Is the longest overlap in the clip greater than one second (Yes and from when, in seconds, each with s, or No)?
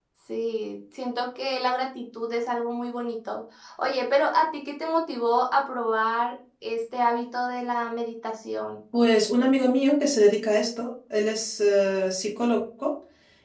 No